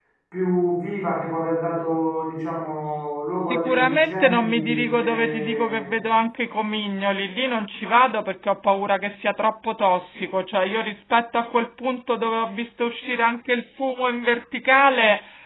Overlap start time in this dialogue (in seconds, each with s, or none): 3.4 s